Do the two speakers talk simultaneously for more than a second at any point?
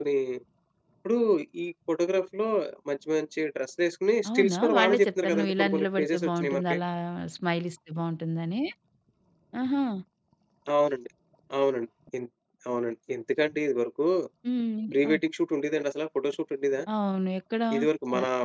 Yes, from 4.3 s

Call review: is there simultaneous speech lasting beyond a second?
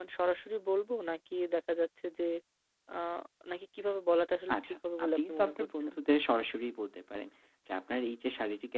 Yes, from 4.5 s

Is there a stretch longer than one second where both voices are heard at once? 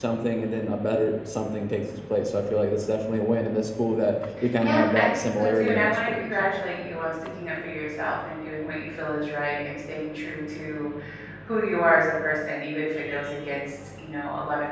Yes, from 4.6 s

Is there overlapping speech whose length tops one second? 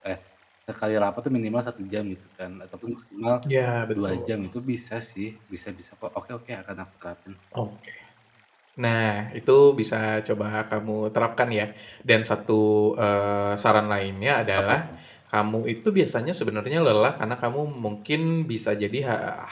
No

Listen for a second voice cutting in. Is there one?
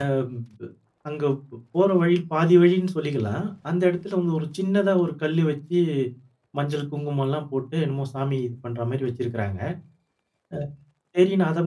No

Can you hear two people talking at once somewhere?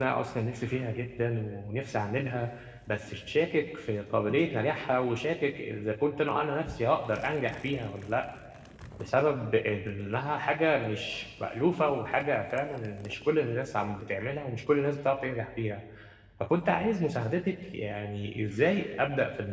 No

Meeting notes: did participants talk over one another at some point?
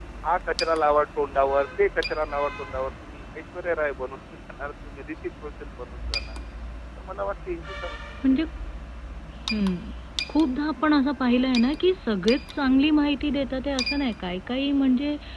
No

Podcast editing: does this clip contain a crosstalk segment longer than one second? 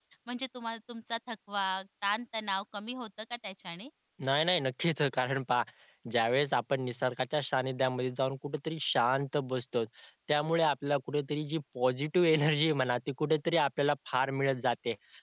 No

